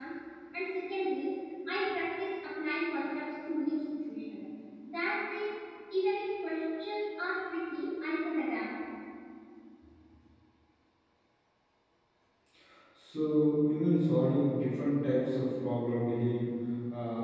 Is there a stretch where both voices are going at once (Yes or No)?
No